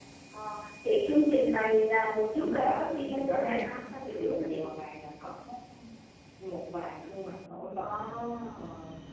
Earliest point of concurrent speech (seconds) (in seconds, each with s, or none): 2.4 s